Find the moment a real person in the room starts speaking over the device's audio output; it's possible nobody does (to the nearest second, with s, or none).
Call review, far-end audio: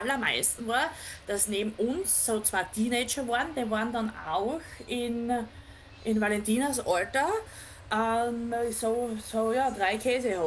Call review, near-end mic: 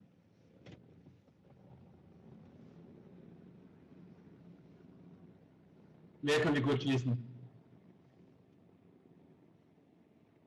6 s